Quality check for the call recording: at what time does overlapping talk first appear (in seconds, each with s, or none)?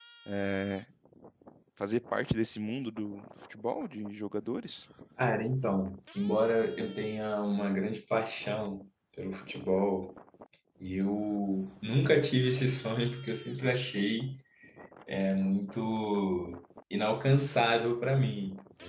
none